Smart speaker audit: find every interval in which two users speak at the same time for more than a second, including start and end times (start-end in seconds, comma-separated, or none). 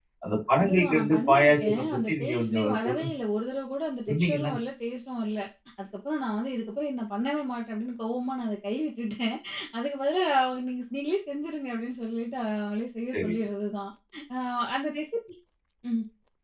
0.6-3.1